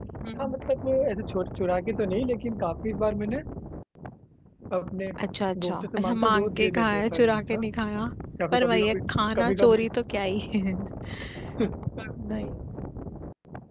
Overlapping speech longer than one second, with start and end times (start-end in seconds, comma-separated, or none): 5.7-7.6